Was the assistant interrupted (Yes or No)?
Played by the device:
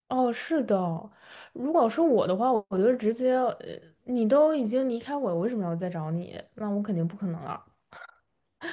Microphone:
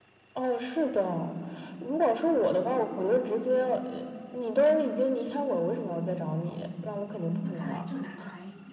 Yes